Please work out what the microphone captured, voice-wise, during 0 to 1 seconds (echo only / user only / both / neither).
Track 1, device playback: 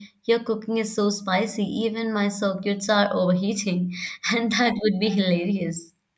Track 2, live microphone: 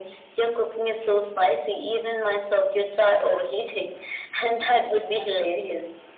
echo only